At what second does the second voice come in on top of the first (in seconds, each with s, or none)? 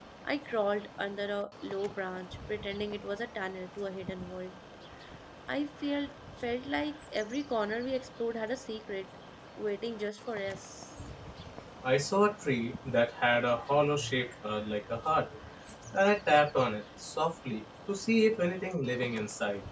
none